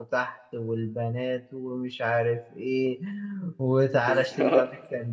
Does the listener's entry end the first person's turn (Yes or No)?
No